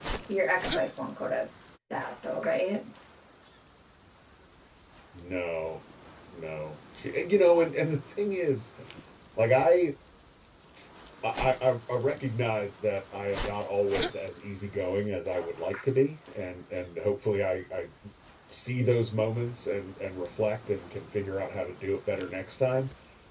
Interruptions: none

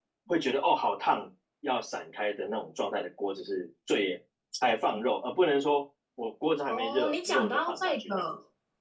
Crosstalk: present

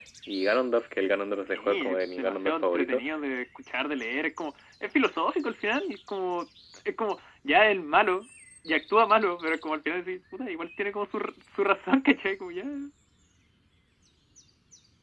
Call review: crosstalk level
present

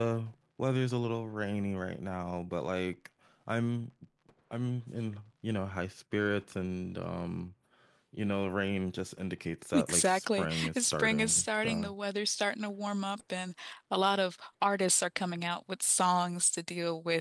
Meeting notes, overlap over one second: present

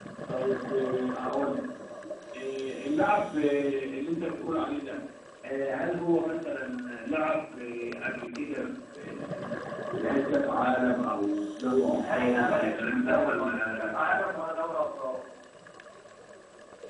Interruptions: present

